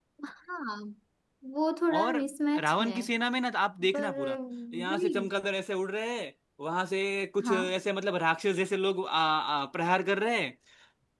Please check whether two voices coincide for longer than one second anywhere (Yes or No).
No